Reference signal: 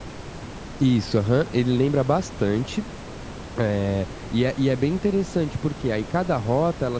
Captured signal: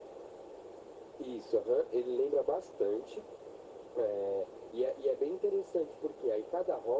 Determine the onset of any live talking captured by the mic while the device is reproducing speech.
none

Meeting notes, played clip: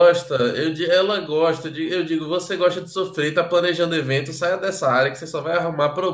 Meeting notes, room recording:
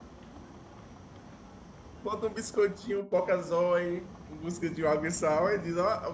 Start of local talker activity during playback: 2.0 s

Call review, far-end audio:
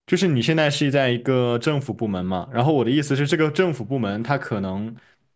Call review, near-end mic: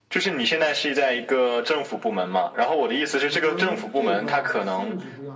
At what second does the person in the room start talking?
3.2 s

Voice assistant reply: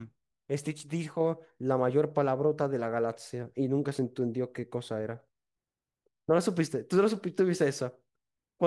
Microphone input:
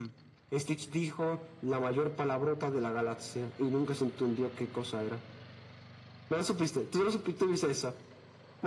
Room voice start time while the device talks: none

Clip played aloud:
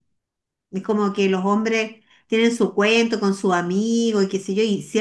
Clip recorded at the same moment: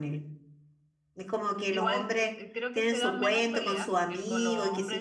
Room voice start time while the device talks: 1.7 s

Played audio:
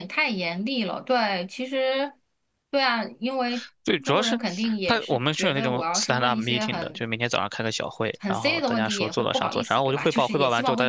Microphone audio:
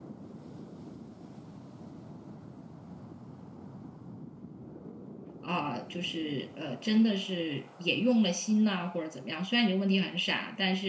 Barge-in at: 5.4 s

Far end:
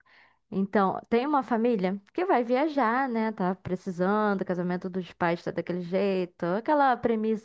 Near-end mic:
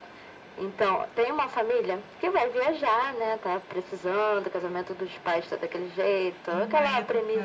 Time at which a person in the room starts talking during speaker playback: 6.5 s

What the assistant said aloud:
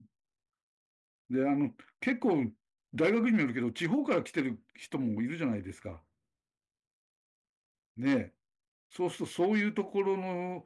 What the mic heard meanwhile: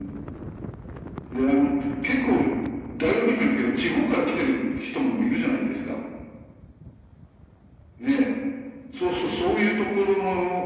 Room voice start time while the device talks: none

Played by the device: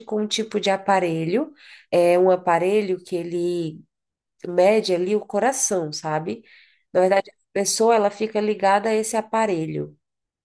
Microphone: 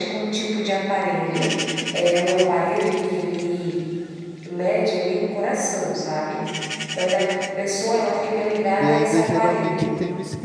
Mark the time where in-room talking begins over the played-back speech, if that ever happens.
8.8 s

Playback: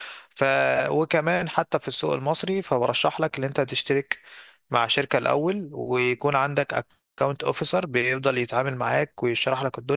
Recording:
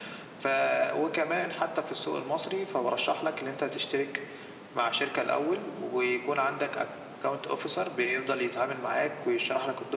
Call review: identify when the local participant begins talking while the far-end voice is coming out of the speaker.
none

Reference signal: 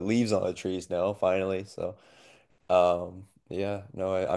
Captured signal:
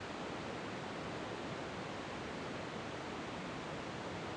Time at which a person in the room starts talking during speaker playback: none

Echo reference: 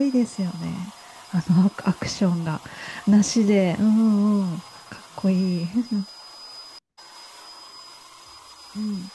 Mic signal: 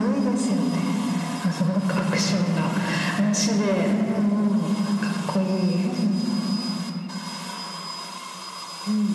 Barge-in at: none

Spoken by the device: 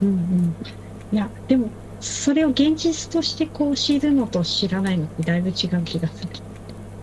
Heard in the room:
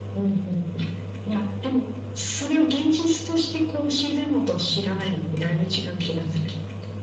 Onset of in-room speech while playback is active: none

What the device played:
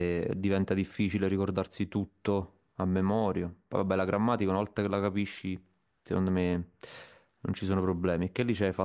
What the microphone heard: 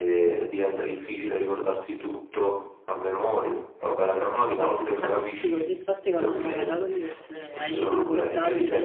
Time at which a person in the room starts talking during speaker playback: 4.2 s

